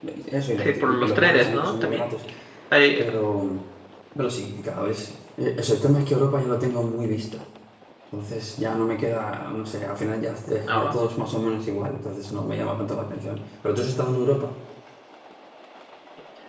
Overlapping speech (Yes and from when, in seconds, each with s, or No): Yes, from 0.6 s